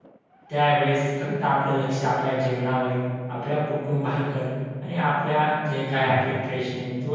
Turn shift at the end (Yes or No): No